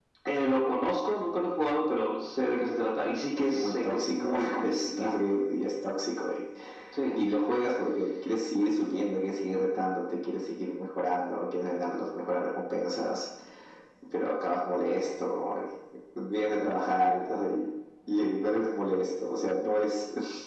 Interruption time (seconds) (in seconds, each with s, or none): 3.5 s